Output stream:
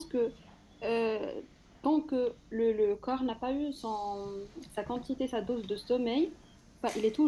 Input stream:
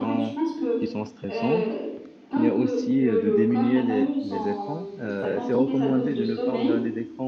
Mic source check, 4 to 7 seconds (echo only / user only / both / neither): both